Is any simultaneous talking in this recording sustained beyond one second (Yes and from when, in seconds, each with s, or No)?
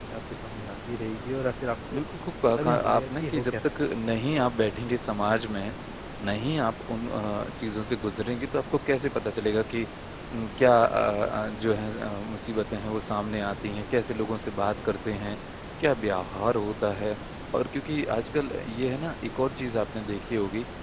Yes, from 2.5 s